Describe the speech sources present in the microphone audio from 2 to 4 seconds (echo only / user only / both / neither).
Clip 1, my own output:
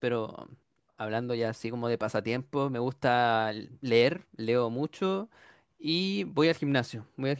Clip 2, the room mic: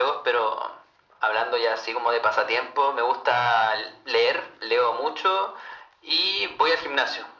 echo only